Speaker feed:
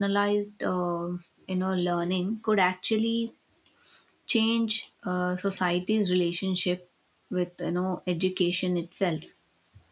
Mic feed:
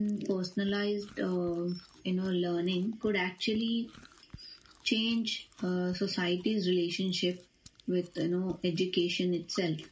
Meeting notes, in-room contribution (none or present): none